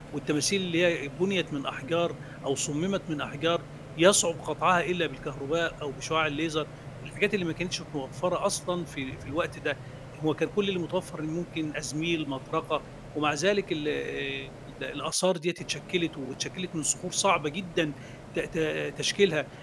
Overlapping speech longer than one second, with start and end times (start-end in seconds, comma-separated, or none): none